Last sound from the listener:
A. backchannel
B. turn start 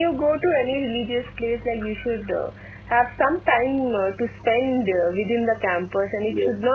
A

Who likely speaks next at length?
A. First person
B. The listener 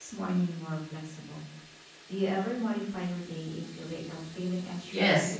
B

